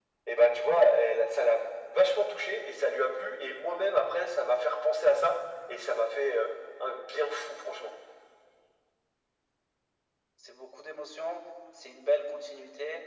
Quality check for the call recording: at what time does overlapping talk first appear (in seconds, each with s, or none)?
none